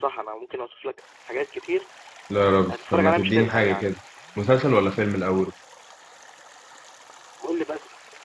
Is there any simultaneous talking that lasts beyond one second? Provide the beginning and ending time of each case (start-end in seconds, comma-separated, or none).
2.7-3.9